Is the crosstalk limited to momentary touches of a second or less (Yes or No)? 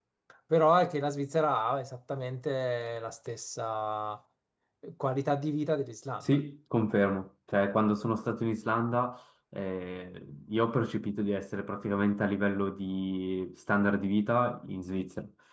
Yes